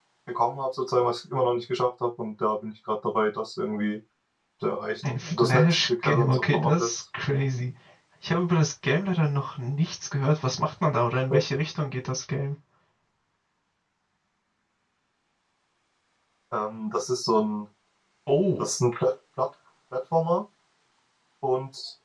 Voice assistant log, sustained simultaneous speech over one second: present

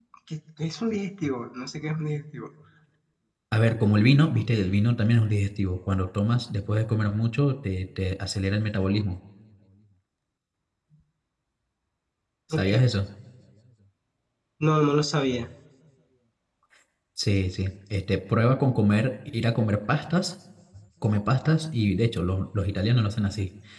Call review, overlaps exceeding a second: none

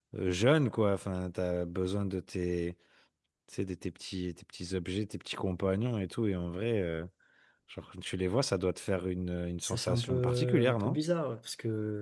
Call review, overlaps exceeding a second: present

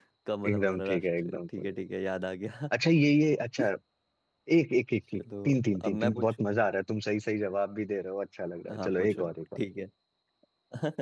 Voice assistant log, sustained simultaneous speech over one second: present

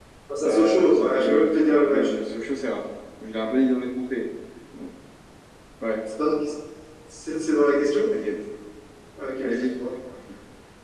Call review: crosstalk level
present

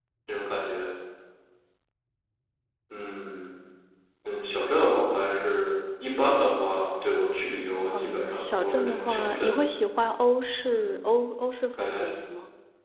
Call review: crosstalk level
present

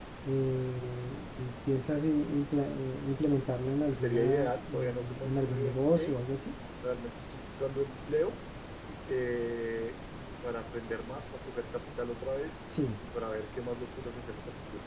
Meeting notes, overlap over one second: present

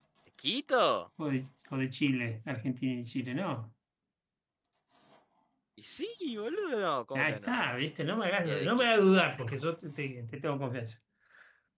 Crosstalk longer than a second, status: none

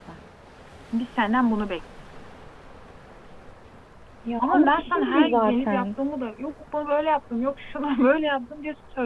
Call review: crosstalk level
present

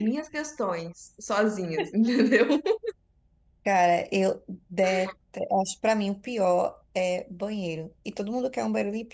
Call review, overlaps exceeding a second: none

